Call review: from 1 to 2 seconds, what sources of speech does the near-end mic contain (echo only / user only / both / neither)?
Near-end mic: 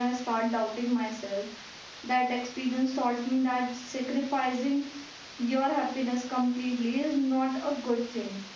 echo only